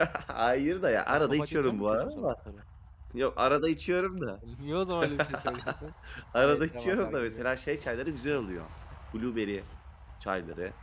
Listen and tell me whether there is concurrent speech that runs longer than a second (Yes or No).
Yes